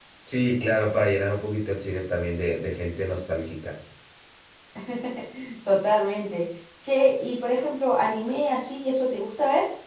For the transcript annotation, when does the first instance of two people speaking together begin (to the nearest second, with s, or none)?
none